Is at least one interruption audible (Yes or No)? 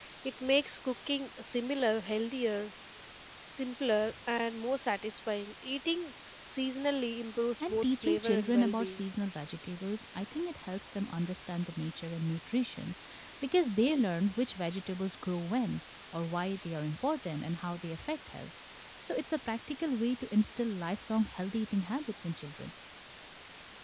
Yes